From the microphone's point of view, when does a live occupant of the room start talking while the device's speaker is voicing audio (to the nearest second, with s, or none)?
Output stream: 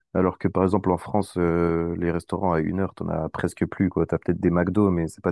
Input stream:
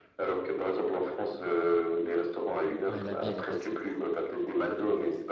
3 s